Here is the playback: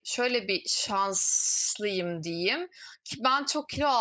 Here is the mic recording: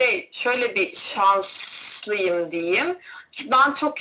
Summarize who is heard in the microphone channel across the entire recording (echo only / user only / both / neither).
echo only